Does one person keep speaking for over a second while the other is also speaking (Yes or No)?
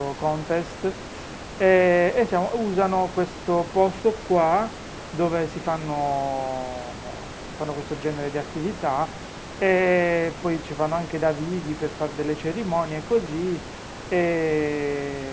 No